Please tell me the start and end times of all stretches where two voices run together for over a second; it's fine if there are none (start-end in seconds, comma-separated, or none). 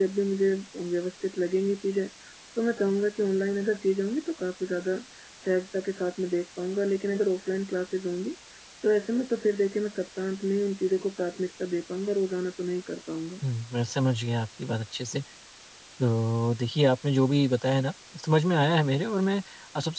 none